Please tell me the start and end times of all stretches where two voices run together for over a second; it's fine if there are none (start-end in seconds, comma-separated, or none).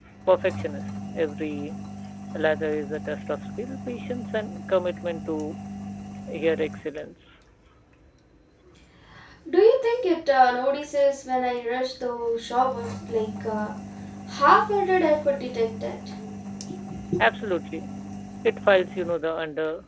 none